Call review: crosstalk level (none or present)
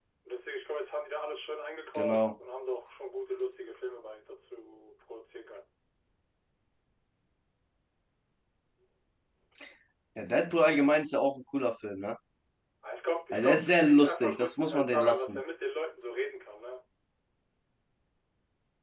present